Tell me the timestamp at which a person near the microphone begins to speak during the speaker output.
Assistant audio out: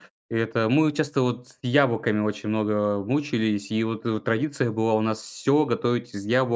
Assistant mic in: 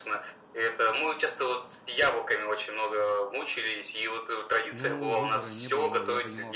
4.7 s

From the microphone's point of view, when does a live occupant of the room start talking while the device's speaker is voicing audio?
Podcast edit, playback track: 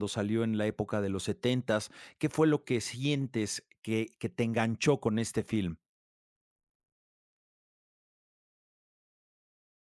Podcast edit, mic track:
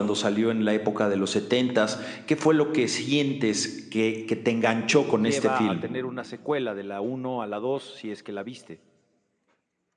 4.9 s

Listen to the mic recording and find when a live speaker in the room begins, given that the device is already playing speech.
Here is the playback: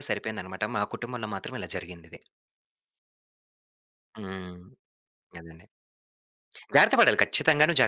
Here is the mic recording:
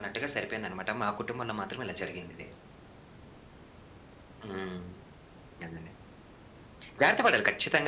none

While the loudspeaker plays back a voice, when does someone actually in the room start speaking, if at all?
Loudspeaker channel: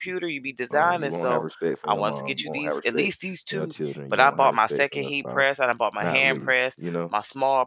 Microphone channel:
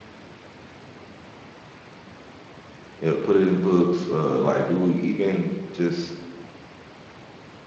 3.0 s

